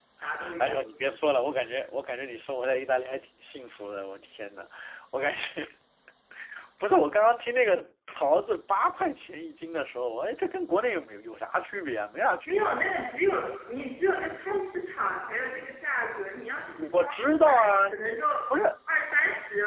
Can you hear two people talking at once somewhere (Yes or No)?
Yes